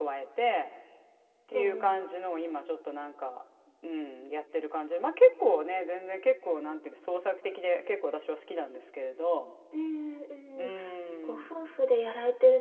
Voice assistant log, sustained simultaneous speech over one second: none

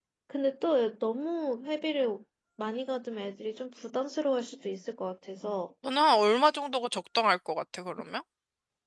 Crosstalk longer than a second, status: none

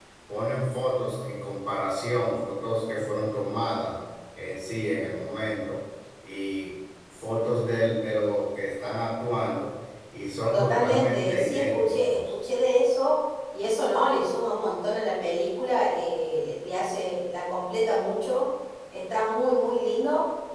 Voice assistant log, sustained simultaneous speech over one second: present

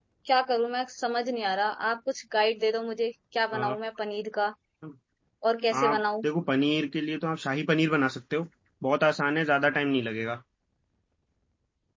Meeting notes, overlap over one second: none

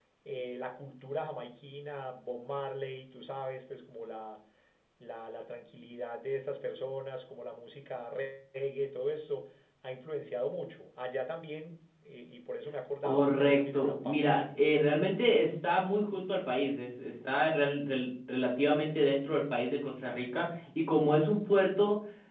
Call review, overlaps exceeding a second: present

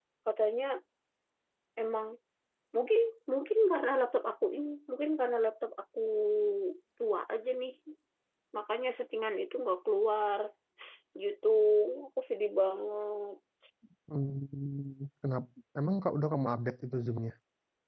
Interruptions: none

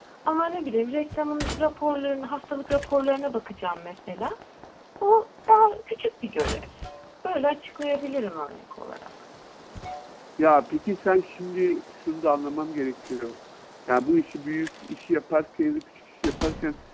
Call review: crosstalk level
none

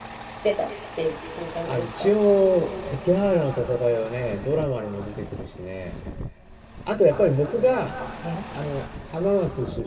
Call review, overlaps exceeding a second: none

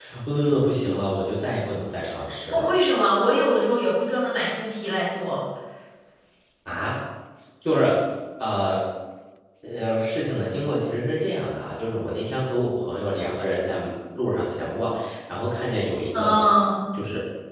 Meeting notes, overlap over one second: none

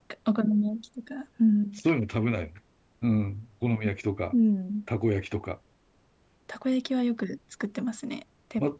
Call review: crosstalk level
none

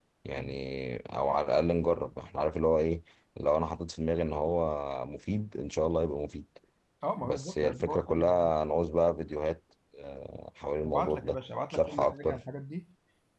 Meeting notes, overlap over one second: present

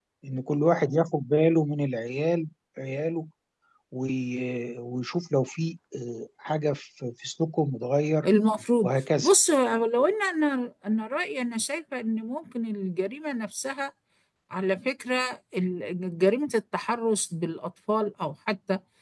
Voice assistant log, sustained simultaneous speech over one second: none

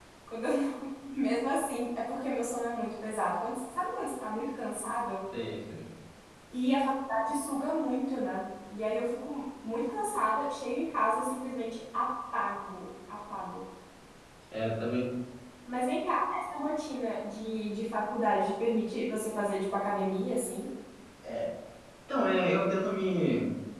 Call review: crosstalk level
none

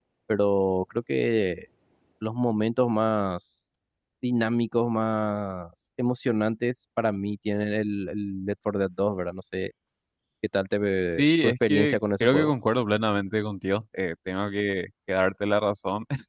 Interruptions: present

